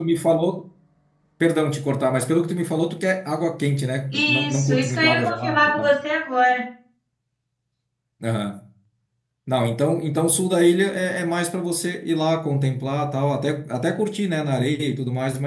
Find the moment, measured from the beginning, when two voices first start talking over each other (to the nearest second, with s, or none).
4 s